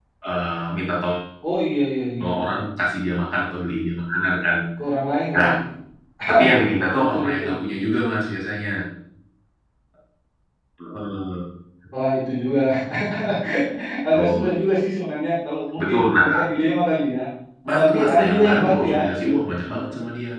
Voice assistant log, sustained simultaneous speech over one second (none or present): present